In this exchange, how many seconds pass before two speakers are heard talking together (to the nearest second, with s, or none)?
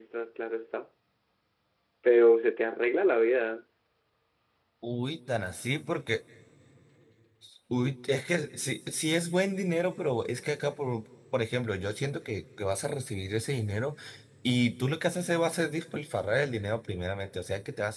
none